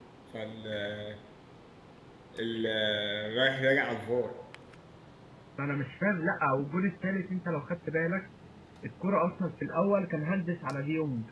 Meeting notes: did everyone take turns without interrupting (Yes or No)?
Yes